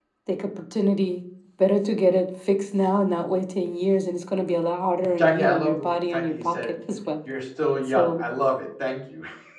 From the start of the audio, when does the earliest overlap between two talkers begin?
5.2 s

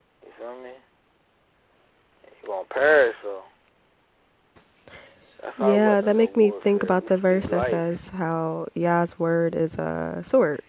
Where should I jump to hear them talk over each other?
5.6 s

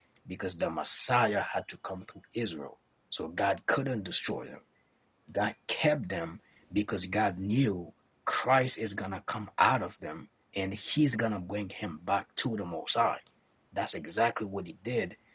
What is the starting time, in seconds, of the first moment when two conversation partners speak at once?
none

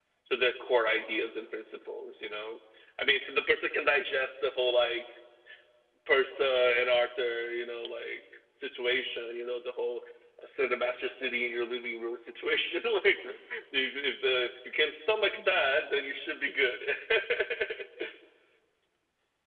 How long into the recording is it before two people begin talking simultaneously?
none

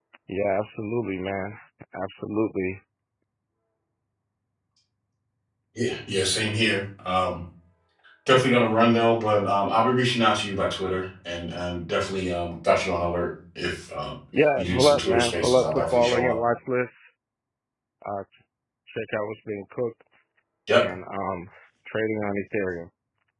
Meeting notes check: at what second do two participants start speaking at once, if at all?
14.6 s

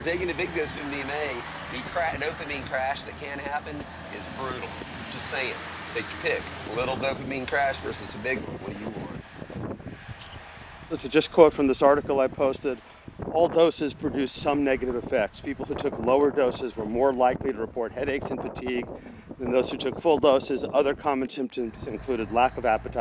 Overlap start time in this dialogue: none

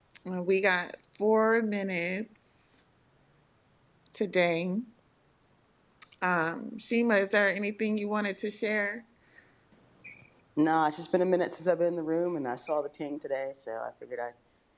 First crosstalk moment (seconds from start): none

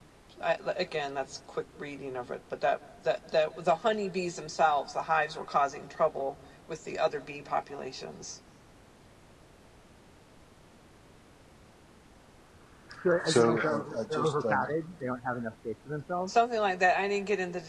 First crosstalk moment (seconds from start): 13.2 s

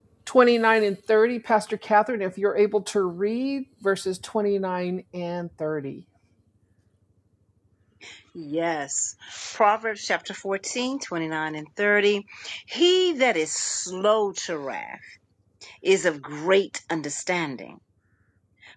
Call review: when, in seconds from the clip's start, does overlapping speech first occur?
none

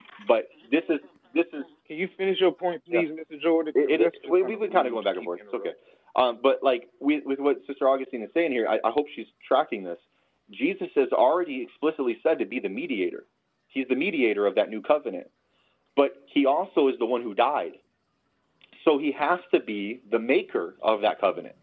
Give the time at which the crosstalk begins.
3.8 s

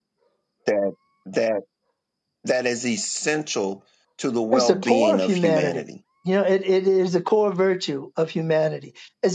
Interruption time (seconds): 4.5 s

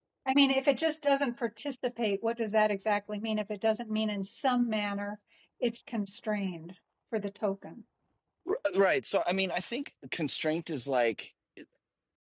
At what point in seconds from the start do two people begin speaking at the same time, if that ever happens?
none

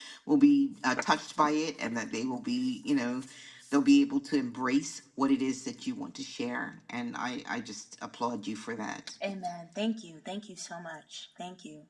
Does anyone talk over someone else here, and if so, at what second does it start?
none

